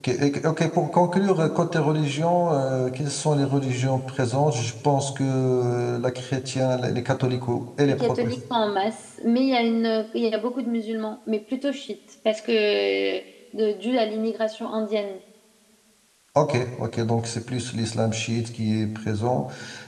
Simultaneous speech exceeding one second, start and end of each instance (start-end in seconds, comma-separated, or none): none